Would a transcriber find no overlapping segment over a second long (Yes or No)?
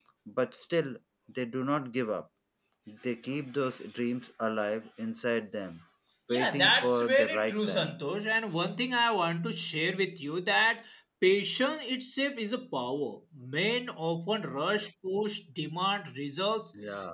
No